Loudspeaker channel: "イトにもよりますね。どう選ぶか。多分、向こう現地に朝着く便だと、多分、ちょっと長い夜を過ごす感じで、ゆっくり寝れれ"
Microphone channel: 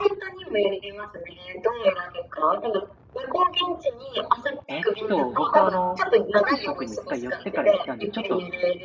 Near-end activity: present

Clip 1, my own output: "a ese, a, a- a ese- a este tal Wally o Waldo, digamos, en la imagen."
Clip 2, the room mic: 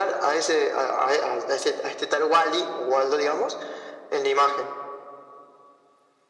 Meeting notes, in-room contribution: none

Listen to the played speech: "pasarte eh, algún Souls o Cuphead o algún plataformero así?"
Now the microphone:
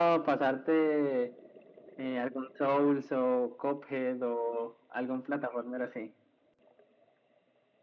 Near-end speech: none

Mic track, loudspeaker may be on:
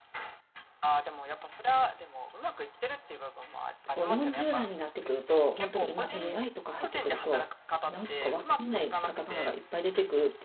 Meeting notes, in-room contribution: present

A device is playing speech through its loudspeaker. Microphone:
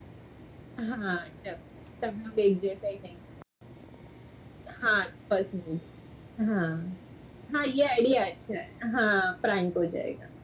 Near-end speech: none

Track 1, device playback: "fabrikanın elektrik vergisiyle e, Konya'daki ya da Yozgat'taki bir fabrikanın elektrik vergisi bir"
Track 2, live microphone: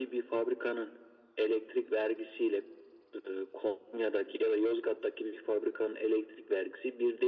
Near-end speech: none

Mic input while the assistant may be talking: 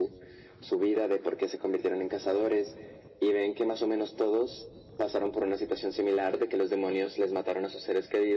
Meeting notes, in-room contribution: none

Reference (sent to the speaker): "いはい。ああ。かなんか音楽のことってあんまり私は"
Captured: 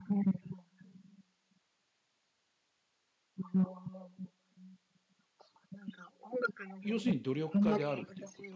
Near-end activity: present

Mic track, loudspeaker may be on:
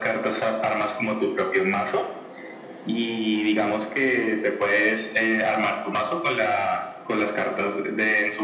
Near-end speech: none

